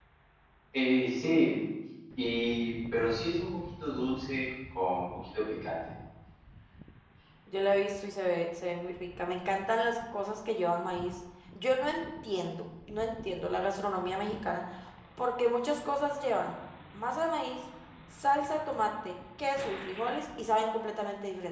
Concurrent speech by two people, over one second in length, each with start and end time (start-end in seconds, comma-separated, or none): none